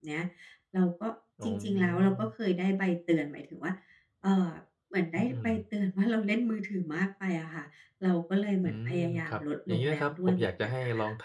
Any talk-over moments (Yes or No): Yes